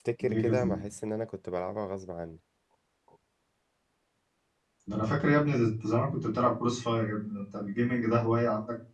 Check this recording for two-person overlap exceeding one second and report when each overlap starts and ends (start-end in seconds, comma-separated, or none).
none